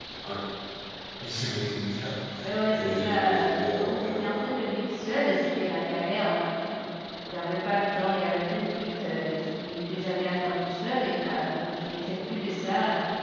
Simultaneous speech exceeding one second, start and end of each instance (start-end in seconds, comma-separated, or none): 2.8-4.3